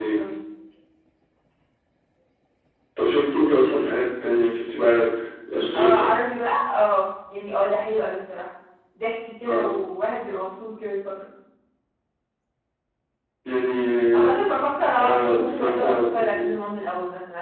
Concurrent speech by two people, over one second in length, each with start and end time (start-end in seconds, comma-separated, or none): 15.0-16.2